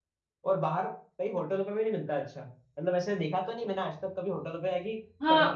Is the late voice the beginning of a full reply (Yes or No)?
Yes